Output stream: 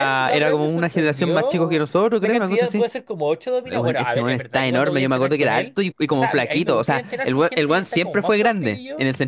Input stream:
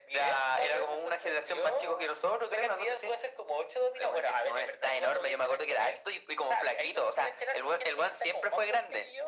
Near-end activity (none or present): none